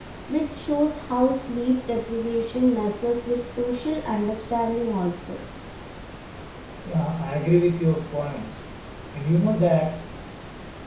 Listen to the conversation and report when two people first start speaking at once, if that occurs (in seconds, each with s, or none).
none